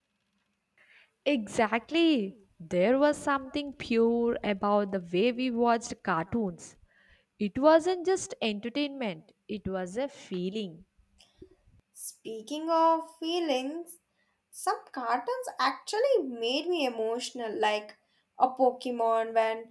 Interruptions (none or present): none